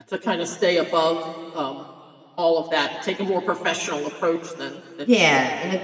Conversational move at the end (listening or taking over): taking over